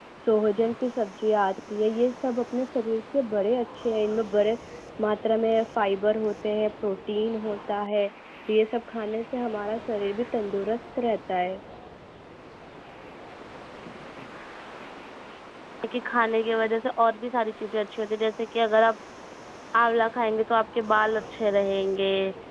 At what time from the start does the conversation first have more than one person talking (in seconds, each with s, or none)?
none